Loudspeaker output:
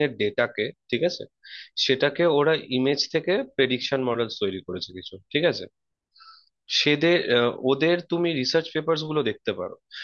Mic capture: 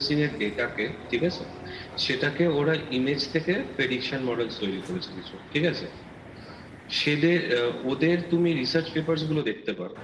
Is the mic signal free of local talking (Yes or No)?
Yes